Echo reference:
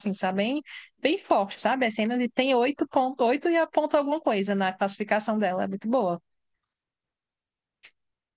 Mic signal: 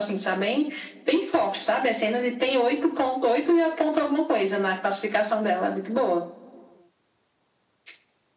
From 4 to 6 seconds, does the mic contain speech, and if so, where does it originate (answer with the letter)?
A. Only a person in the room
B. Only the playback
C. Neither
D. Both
B